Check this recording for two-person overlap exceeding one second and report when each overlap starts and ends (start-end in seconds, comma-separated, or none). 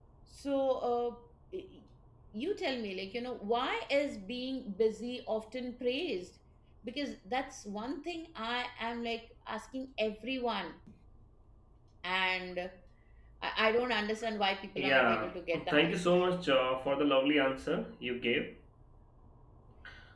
14.8-16.1